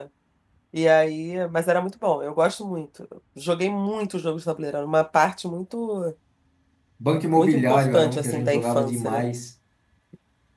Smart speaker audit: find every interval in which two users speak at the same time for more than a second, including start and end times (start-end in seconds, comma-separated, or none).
7.4-9.2